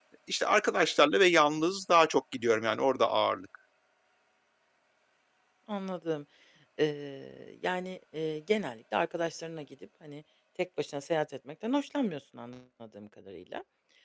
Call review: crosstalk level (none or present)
none